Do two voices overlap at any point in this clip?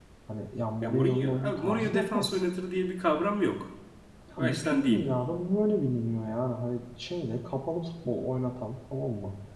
Yes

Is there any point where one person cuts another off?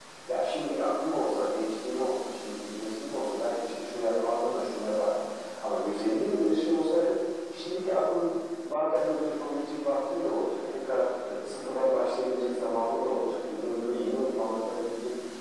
No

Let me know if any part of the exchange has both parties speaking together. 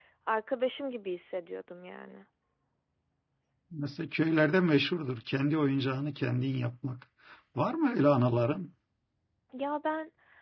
No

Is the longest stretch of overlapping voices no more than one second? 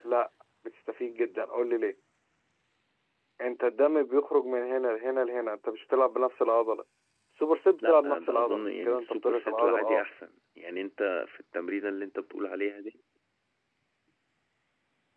No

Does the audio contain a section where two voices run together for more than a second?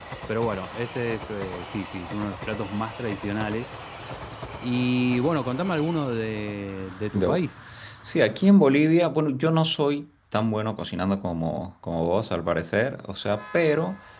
No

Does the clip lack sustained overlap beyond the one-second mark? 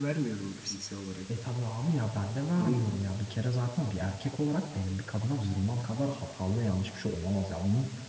Yes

